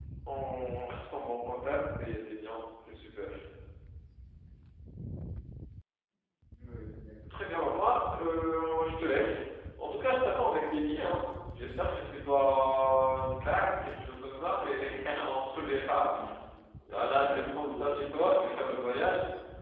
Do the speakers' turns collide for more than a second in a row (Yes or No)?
Yes